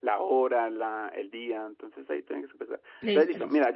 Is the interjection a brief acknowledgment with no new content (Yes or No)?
Yes